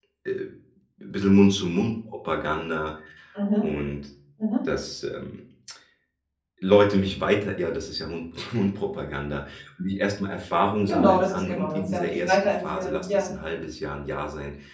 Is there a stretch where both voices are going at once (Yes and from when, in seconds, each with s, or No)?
Yes, from 10.9 s